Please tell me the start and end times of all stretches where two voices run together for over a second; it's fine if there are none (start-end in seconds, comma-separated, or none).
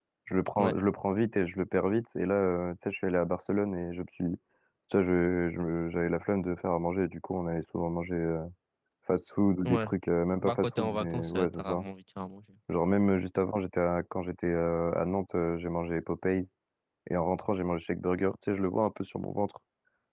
10.4-11.8